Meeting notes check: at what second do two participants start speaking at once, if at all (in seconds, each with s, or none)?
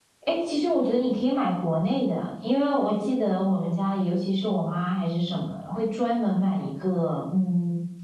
none